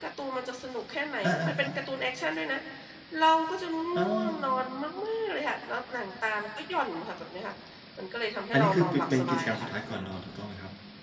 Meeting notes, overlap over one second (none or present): present